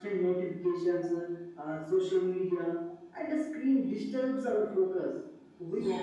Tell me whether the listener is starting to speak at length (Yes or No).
No